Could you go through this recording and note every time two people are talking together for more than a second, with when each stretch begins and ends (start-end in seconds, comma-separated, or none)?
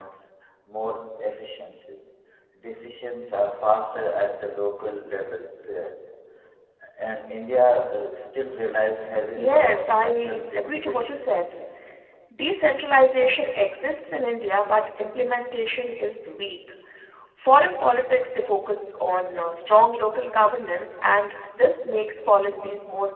9.4-11.2